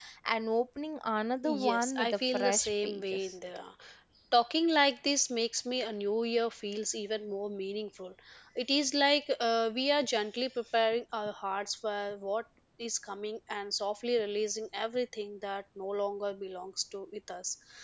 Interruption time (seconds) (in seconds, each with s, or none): 1.4 s